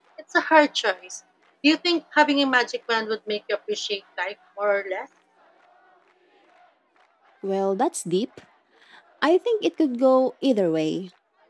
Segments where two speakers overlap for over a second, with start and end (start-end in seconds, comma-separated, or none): none